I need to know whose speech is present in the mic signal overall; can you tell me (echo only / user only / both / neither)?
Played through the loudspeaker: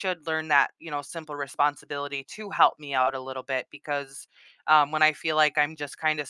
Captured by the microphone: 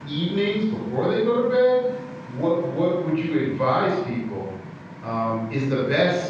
user only